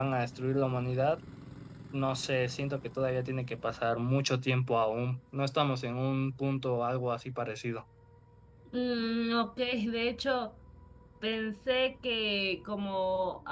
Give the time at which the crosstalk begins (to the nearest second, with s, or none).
none